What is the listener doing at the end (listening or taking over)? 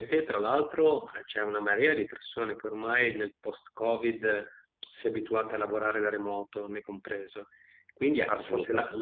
listening